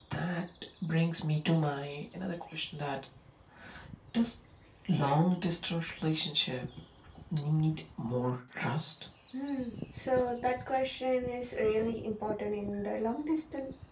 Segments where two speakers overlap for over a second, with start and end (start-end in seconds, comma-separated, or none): none